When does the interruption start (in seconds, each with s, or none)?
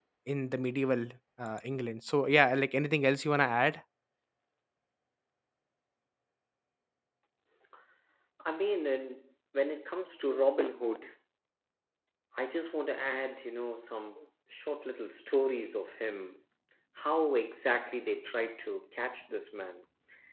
none